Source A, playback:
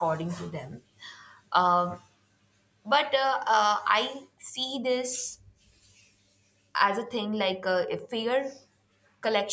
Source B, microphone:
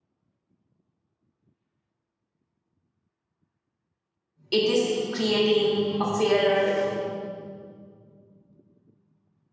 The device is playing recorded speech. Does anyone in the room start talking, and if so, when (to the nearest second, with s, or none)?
5 s